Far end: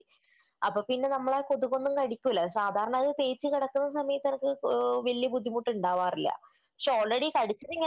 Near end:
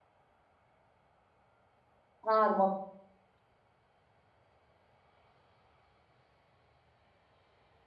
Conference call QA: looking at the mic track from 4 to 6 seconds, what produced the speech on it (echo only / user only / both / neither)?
neither